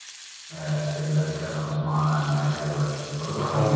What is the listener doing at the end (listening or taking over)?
taking over